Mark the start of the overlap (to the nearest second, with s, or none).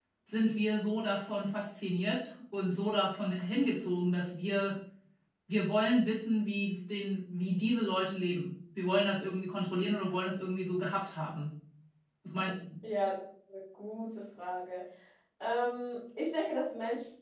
none